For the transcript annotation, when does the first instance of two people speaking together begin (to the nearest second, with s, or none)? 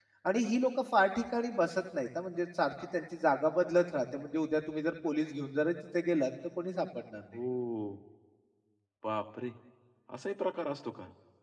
none